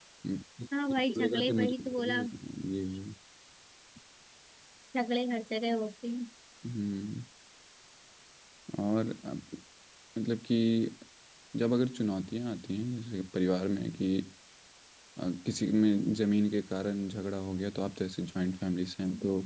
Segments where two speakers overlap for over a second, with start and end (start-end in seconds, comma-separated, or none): 0.9-2.2